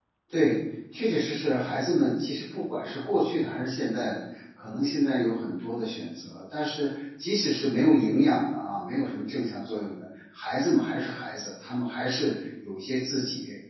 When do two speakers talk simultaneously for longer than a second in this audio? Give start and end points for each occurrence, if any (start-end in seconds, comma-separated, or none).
none